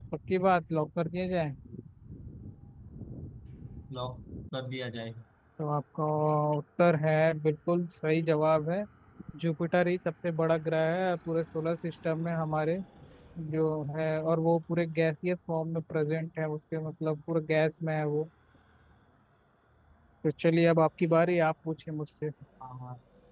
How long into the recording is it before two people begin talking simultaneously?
none

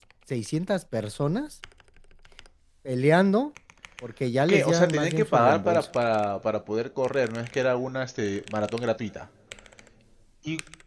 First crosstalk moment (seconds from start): 4.5 s

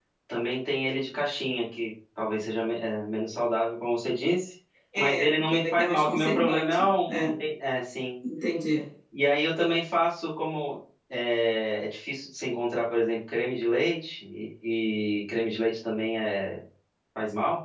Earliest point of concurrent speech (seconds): 5.0 s

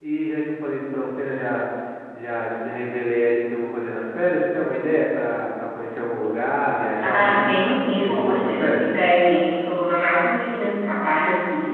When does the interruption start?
7.0 s

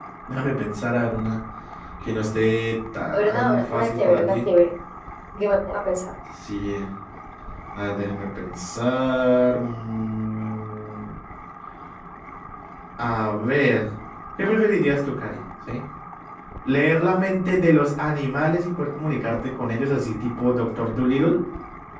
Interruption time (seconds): 3.1 s

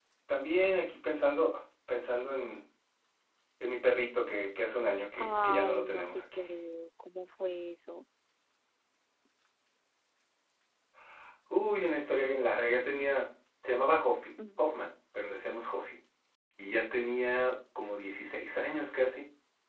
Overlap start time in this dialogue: 5.2 s

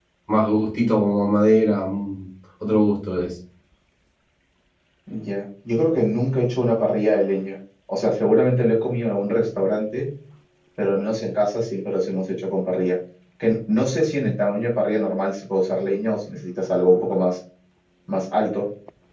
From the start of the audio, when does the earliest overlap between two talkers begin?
none

